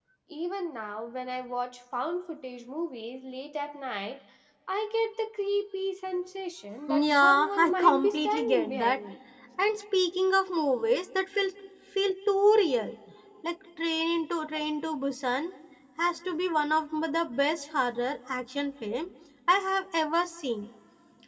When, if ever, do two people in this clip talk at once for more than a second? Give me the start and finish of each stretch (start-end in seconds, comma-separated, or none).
6.9-9.0